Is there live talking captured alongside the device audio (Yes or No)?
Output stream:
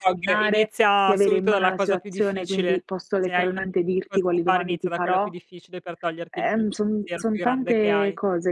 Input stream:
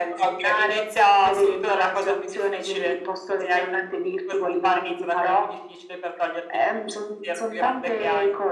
No